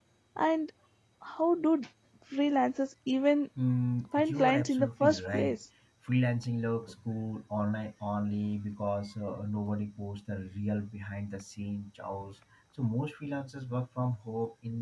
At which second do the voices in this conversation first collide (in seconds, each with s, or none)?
4.1 s